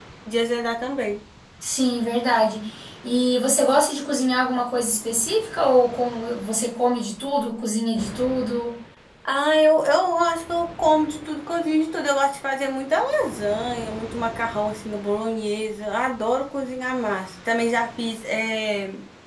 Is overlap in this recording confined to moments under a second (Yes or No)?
Yes